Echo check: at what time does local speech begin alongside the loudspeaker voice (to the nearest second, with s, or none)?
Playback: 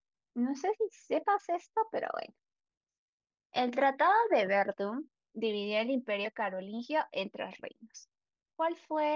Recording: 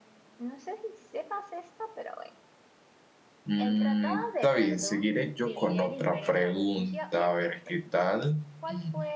3 s